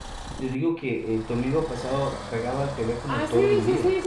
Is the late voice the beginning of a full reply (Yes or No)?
Yes